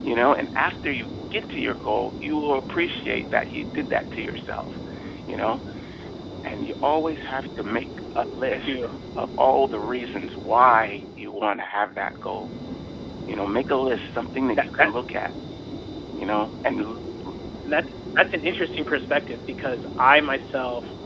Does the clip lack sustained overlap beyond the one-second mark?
Yes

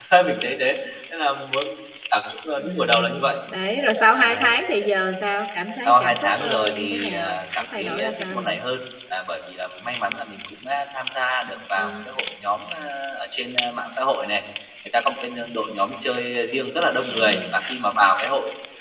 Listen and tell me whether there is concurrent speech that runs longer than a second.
Yes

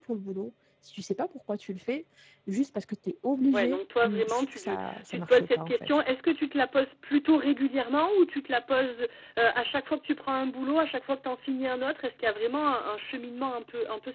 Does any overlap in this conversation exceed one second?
Yes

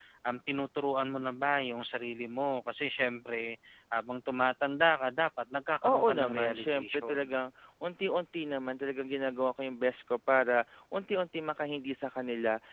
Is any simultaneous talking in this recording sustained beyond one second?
Yes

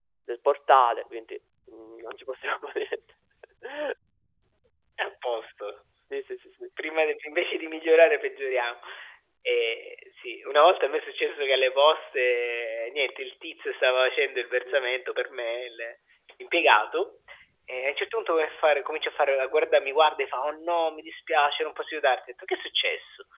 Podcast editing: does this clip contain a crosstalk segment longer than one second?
No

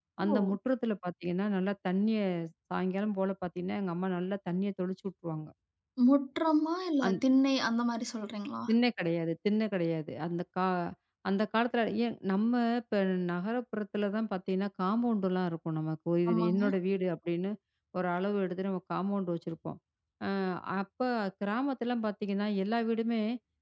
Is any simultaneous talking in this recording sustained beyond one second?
No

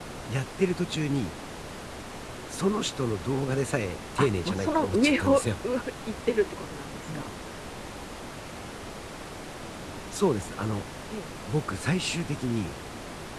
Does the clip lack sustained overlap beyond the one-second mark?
No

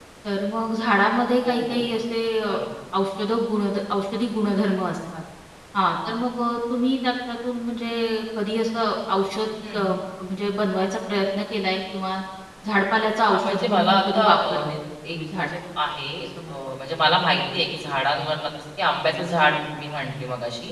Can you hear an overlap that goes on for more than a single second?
Yes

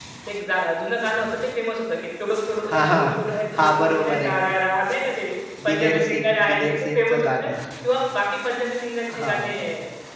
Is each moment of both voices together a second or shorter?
No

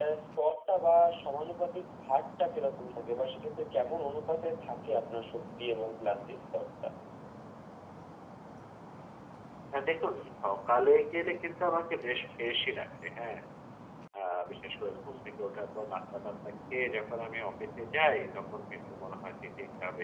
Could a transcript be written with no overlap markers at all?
Yes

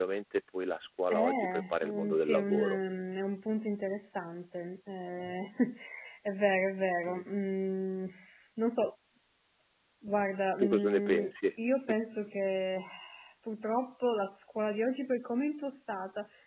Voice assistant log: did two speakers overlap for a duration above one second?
Yes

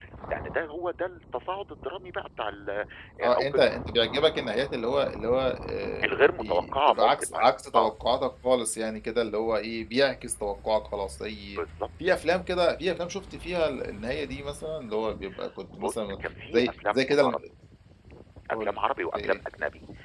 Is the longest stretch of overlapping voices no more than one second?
No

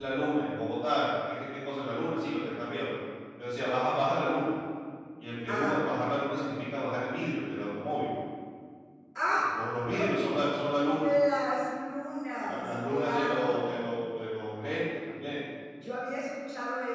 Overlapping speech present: Yes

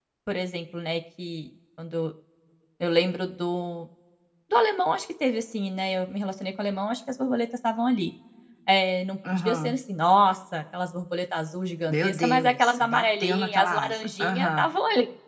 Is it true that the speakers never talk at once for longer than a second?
No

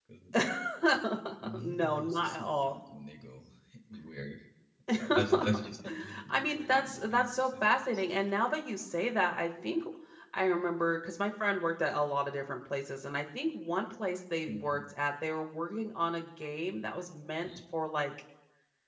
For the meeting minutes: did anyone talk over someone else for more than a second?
Yes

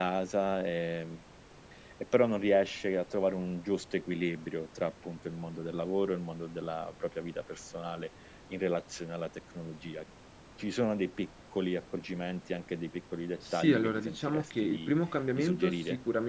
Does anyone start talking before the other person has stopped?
Yes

